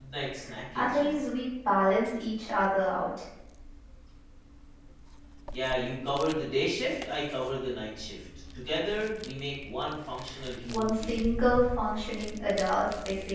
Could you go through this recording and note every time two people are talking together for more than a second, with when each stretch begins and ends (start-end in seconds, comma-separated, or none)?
none